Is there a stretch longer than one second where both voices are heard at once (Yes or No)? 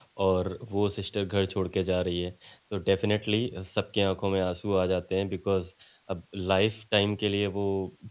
No